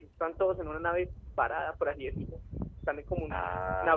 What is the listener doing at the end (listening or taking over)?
listening